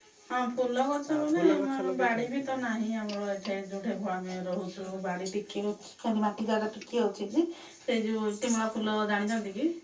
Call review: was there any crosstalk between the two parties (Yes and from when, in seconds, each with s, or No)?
Yes, from 1.1 s